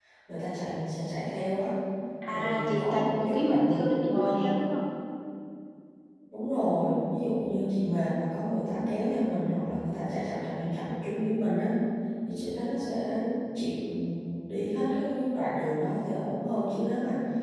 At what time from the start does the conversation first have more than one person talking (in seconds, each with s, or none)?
2.3 s